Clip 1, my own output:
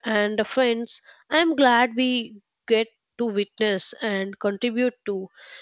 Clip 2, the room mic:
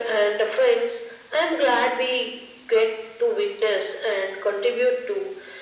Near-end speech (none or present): none